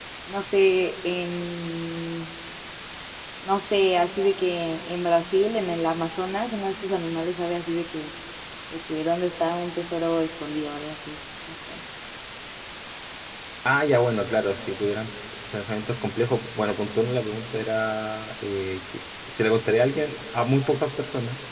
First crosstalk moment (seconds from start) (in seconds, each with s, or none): none